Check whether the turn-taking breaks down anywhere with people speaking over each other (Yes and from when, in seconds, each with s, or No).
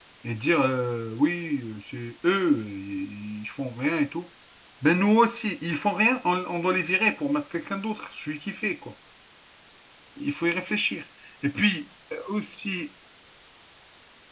No